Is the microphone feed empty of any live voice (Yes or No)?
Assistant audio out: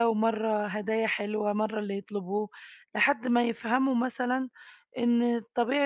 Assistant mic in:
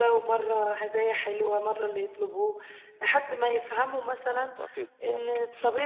No